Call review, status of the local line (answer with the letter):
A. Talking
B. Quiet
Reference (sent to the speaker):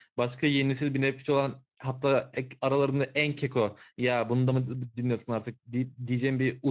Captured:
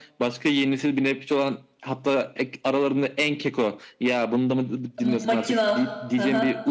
A